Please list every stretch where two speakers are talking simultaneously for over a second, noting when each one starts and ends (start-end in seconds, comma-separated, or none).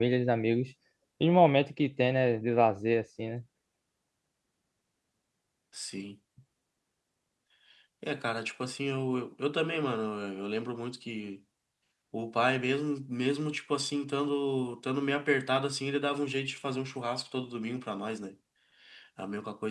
none